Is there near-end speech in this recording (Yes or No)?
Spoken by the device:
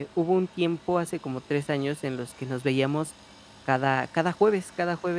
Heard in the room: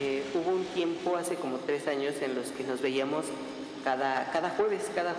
No